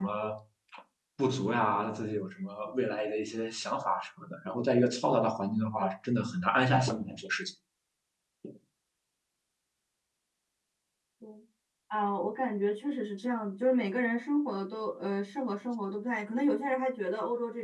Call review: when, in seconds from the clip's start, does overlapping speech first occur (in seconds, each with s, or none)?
none